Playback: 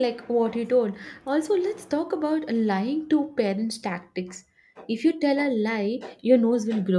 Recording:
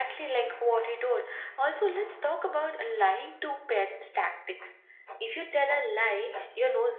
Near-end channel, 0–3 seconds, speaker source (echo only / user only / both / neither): echo only